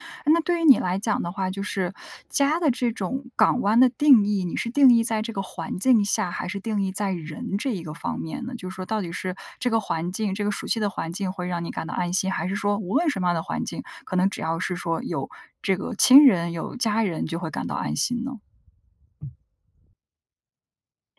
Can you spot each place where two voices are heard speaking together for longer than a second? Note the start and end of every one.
none

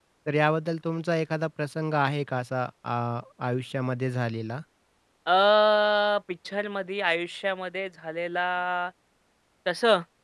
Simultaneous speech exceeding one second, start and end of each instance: none

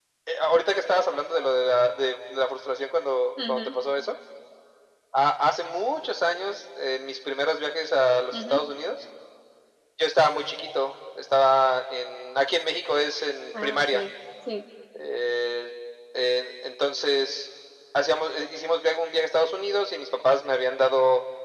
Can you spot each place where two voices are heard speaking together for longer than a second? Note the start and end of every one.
none

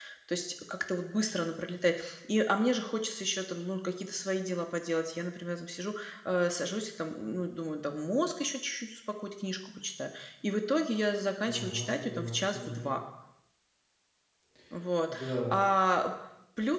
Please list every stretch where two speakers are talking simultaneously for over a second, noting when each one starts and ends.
11.4-13.0

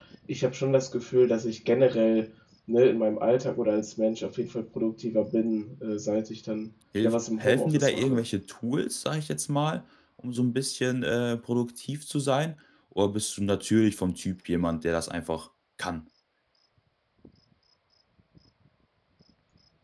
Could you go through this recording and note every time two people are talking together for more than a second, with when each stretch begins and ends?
7.0-8.2

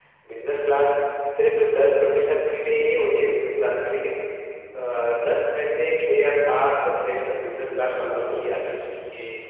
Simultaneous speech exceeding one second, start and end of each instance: 7.2-8.8

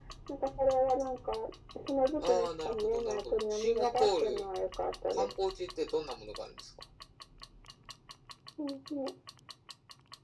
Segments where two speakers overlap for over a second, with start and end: 2.2-4.4

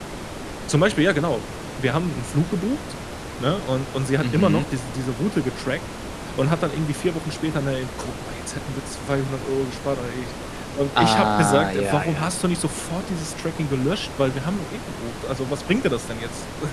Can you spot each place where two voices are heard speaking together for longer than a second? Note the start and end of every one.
11.0-12.3

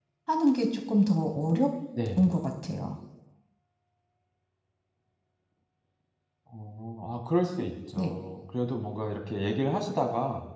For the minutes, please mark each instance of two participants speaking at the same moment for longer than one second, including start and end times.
none

